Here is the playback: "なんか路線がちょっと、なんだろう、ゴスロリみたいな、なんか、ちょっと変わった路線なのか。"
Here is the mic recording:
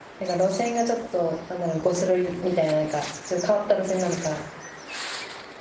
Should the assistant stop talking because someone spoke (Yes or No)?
No